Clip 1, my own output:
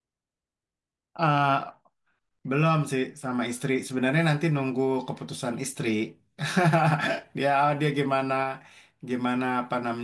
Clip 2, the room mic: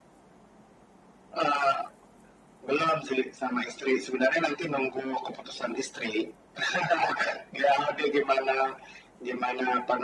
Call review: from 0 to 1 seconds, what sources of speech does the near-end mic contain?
neither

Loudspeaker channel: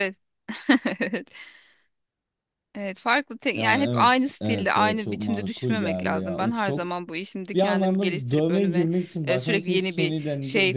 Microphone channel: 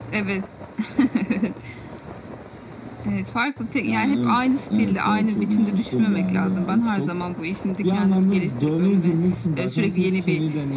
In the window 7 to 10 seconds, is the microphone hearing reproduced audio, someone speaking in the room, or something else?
echo only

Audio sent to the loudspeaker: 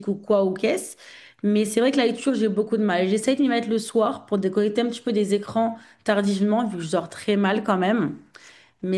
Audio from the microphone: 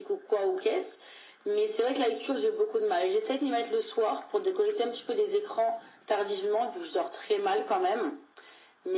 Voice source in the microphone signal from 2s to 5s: echo only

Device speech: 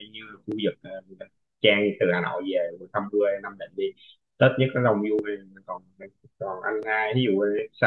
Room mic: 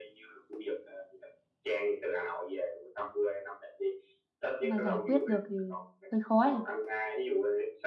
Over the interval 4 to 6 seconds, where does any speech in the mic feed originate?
both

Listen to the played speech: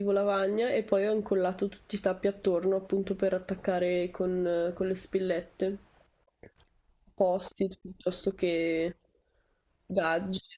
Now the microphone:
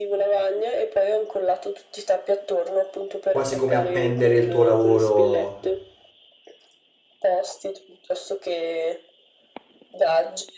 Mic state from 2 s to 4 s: both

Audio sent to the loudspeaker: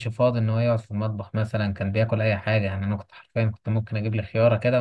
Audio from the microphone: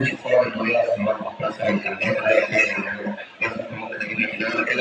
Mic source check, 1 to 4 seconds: echo only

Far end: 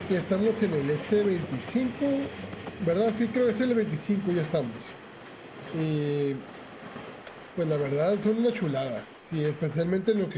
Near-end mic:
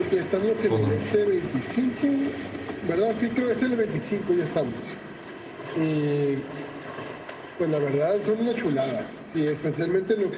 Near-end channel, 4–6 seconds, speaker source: echo only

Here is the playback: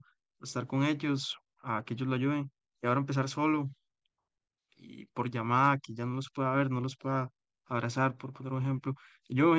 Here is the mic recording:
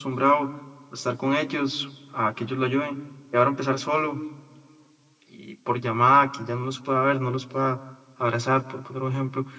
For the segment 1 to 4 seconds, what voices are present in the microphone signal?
echo only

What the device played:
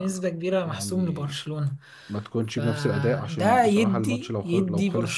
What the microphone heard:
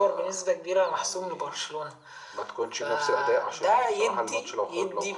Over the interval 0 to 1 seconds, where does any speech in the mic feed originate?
echo only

